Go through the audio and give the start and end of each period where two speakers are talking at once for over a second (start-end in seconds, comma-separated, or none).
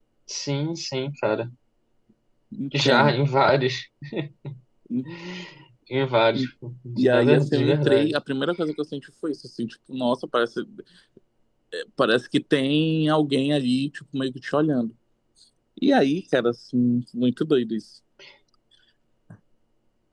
7.0-8.2